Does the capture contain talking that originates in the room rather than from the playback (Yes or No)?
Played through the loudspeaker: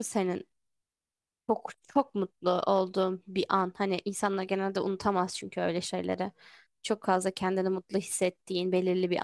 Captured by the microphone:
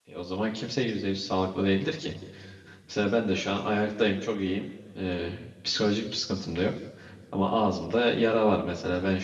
Yes